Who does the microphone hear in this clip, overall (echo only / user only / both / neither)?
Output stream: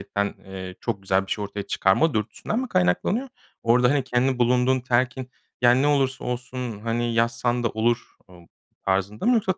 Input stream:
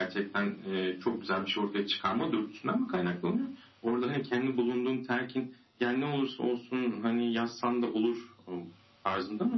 echo only